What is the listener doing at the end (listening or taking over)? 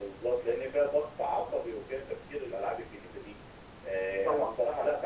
listening